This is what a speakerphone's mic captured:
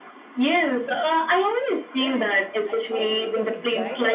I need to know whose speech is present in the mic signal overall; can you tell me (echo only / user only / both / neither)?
both